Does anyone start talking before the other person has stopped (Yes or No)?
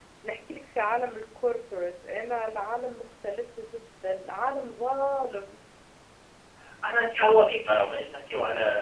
No